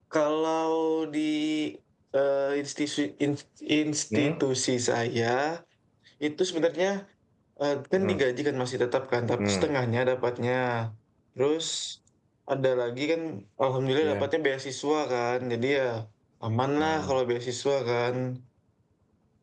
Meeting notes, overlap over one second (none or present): none